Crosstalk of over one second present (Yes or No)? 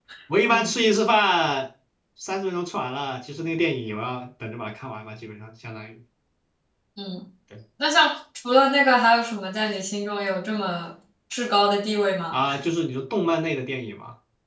No